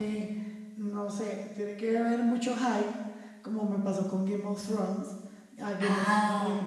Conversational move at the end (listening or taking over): listening